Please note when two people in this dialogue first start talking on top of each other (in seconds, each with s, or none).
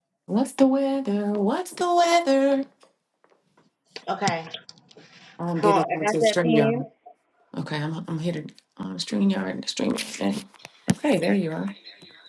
5.6 s